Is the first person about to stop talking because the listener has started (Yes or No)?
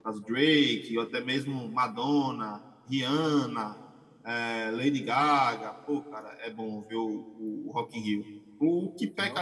No